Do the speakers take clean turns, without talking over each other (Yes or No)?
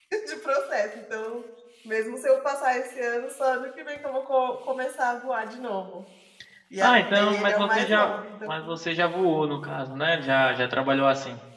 No